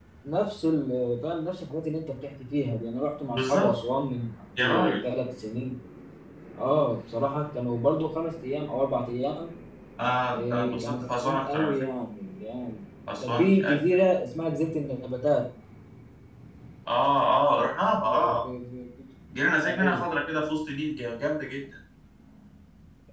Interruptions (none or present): present